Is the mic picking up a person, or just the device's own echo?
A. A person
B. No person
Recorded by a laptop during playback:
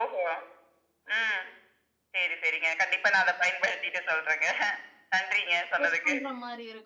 A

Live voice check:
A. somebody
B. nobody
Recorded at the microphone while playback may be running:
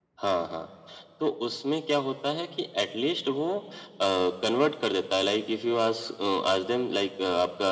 B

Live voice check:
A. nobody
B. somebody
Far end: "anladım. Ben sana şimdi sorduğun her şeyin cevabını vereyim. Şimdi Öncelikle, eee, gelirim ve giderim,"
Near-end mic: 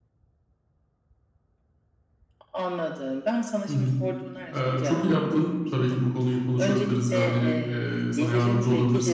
B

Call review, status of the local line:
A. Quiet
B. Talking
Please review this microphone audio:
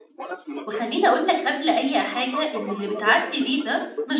B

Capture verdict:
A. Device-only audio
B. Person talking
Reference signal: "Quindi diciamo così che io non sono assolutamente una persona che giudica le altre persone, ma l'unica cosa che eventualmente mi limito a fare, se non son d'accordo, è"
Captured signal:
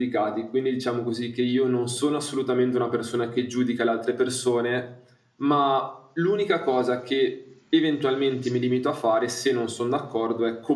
A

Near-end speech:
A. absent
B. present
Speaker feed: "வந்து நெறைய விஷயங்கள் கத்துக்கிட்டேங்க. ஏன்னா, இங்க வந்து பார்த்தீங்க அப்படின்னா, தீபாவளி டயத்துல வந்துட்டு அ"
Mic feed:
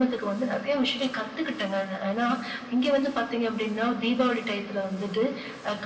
A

